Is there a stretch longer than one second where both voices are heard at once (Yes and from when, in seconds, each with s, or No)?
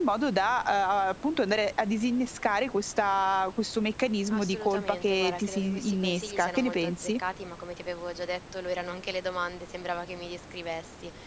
Yes, from 4.3 s